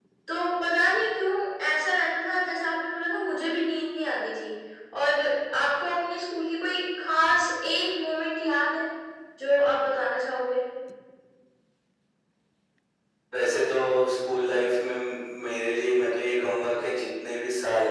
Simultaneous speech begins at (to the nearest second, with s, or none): none